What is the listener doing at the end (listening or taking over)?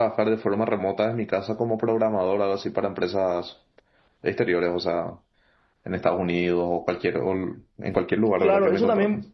taking over